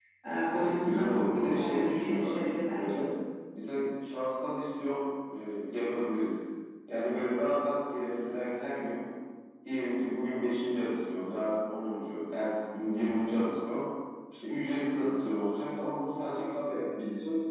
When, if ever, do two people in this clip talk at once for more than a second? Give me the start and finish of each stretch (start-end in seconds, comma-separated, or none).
0.5-3.0